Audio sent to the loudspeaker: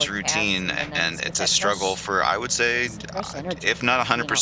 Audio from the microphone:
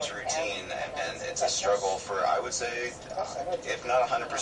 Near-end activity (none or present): none